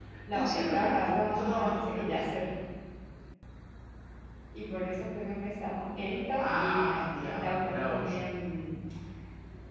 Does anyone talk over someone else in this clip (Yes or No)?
Yes